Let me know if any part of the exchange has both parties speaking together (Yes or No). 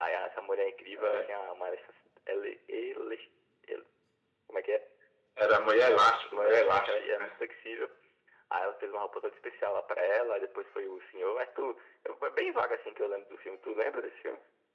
Yes